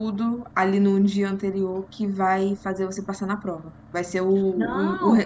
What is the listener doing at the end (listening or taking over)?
listening